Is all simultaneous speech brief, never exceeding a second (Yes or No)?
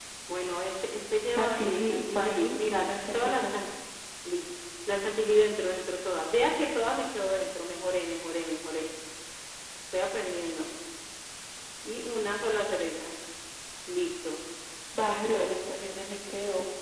No